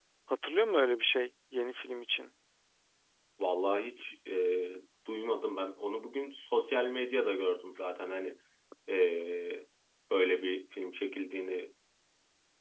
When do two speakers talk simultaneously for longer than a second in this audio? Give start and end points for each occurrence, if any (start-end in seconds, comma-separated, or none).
none